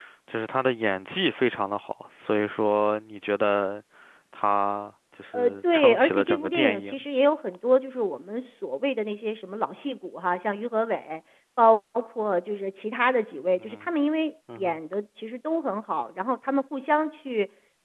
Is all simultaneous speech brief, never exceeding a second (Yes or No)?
No